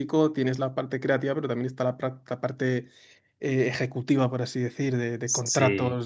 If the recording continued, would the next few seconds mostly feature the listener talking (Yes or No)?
No